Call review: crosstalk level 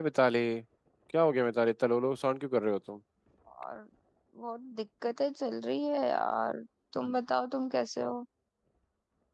none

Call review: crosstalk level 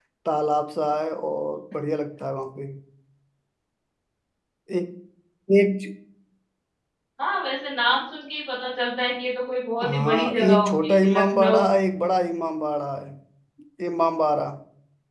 present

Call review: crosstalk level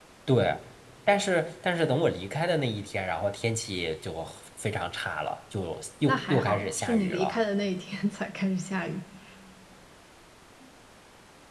present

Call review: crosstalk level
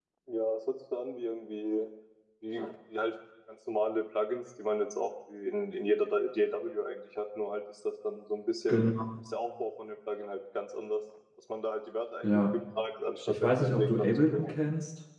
present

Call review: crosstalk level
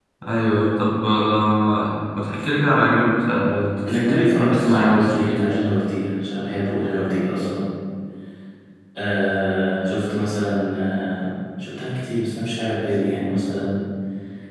present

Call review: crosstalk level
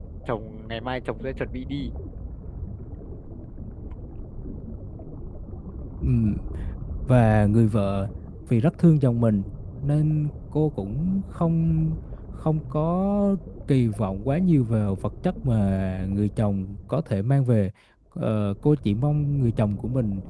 none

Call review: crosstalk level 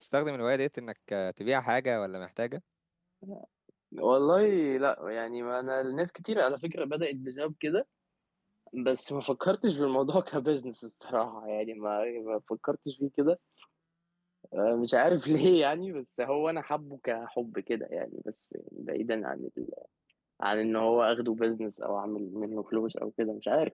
none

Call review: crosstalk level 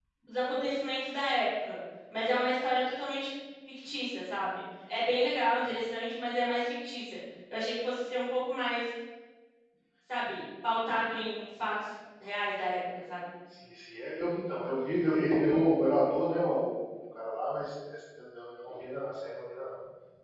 none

